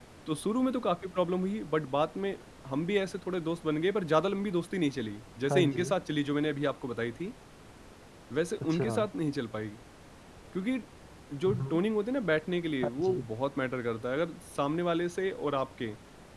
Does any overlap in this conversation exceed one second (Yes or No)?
No